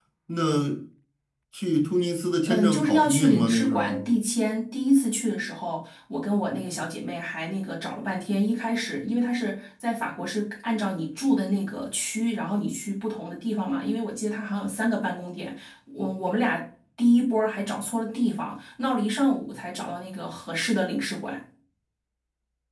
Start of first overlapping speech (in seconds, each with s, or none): 2.5 s